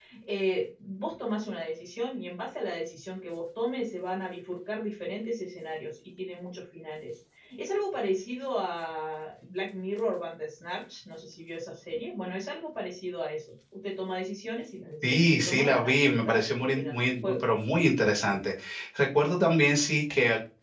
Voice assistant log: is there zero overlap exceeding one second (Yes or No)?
No